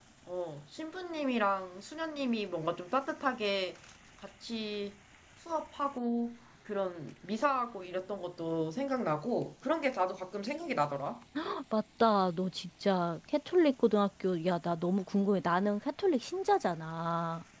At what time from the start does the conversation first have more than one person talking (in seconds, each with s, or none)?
none